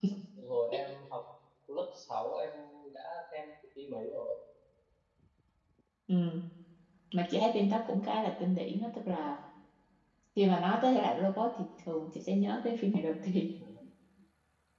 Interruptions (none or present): none